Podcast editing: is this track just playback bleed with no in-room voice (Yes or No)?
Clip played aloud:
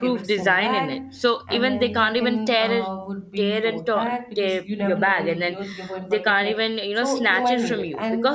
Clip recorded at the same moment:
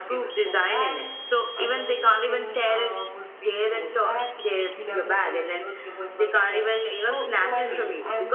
Yes